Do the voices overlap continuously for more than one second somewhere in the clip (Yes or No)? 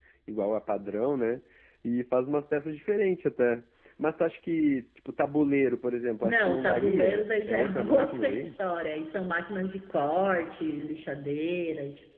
Yes